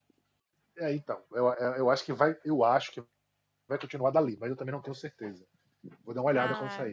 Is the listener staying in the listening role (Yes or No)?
No